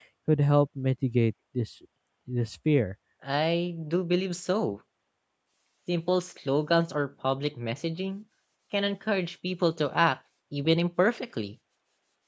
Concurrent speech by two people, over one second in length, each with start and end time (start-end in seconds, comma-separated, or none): none